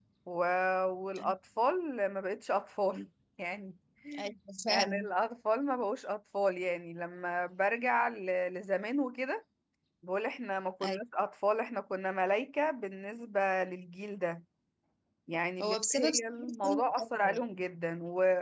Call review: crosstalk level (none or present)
present